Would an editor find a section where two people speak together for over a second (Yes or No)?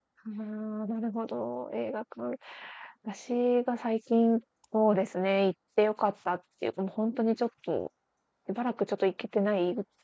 No